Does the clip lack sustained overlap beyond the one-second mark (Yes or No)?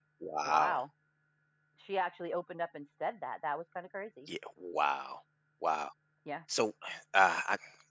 Yes